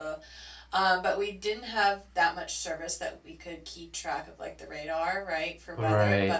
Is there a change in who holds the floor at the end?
No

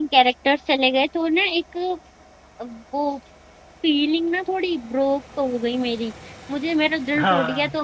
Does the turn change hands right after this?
No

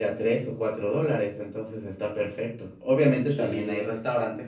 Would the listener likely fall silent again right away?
Yes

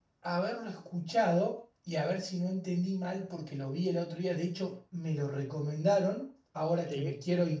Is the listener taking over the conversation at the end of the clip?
No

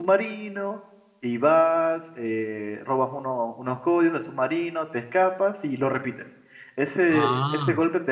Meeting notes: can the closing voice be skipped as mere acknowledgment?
Yes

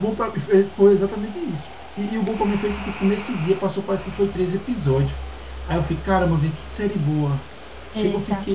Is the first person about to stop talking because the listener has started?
Yes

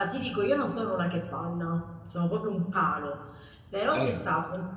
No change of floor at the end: Yes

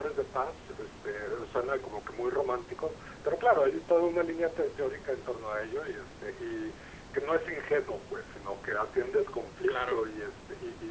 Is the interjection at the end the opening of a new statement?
No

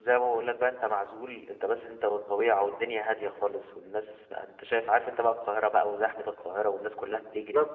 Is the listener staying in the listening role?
Yes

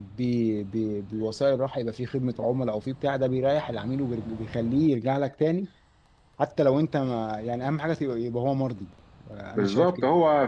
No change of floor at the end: No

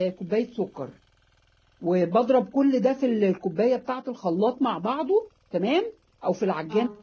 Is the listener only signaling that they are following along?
Yes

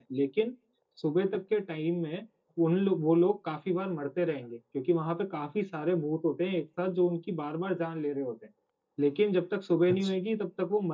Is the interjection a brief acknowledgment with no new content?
Yes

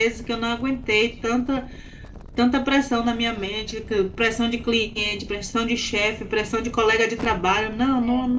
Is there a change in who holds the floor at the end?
No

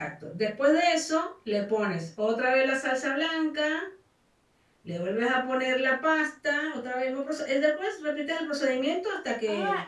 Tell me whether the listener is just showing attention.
No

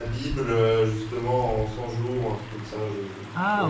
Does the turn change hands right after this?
Yes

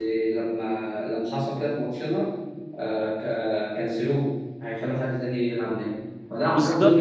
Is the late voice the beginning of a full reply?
No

